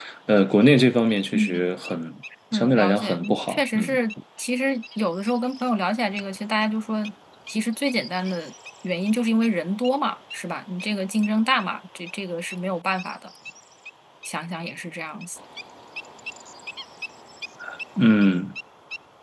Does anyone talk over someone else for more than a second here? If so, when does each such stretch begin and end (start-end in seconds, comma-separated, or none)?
2.5-4.0